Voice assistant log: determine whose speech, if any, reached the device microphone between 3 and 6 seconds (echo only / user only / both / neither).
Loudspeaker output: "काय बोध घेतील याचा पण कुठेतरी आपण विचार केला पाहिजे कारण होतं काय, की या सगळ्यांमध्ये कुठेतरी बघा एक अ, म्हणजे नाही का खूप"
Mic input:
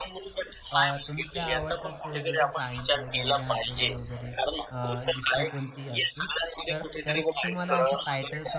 both